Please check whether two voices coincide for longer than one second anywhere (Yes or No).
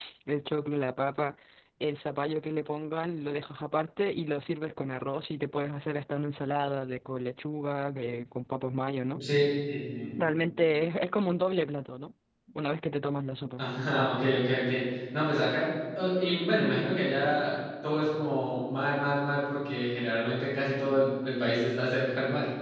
No